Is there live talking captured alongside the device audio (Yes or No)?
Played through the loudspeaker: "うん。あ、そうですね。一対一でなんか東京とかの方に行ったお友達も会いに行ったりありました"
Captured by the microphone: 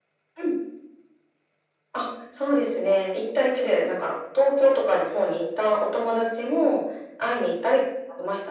No